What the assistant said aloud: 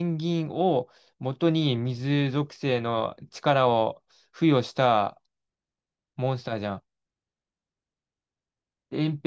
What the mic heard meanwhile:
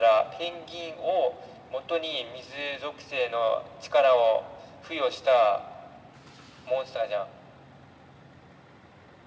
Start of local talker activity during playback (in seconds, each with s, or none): none